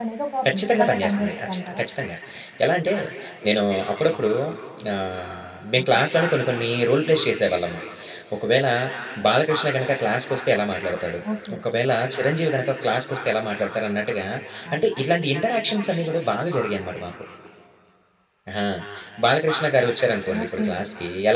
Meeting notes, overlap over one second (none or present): present